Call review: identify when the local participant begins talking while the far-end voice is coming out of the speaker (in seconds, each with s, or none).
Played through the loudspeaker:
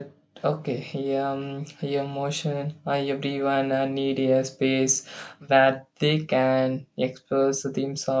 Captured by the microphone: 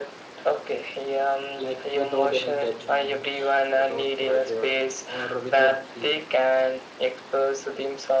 1.6 s